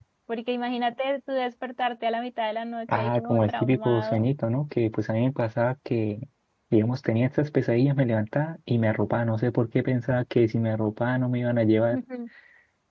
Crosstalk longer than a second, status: present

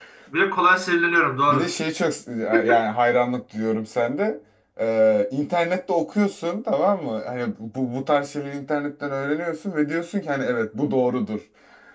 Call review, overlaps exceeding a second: none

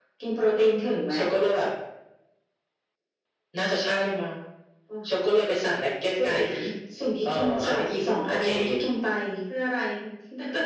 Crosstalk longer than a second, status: present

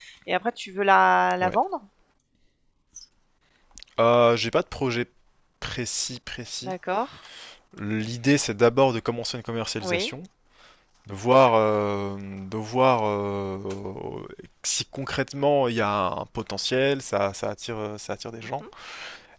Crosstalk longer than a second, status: none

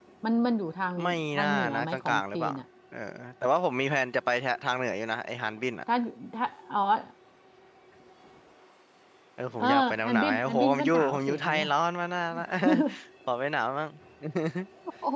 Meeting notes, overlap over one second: present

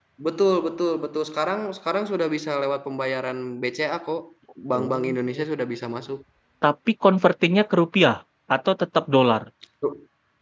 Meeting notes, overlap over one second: none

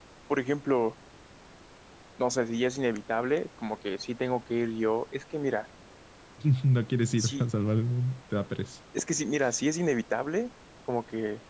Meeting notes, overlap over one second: none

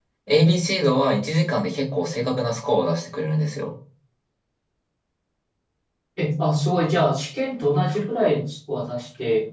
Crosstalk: none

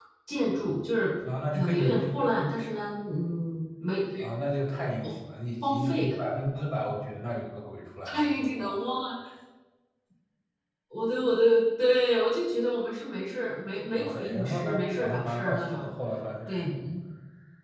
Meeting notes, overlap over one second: present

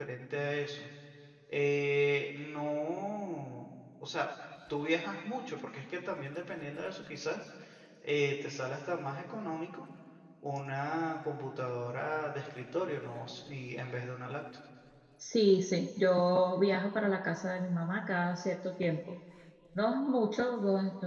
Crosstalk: none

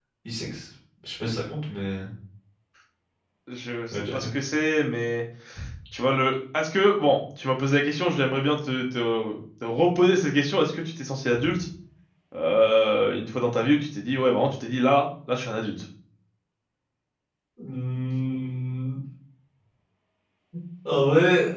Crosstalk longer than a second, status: none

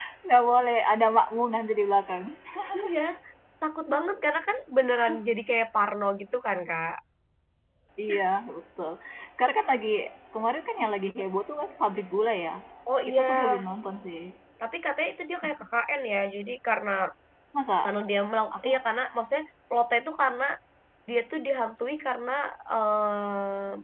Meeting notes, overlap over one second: none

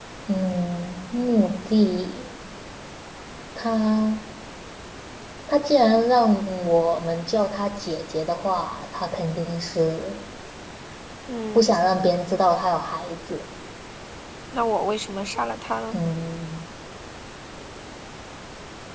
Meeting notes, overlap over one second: none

